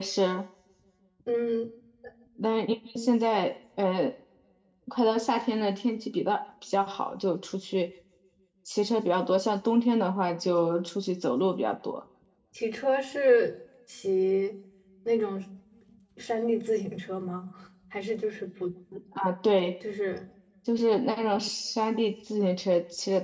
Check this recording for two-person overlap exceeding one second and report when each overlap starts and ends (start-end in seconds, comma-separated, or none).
none